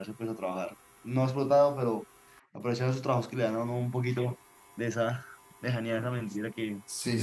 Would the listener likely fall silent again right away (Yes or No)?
No